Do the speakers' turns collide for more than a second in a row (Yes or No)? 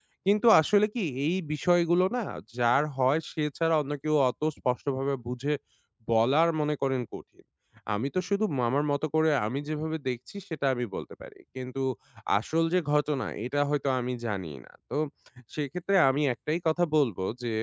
No